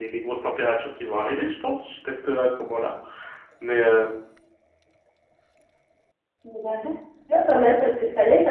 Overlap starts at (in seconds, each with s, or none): none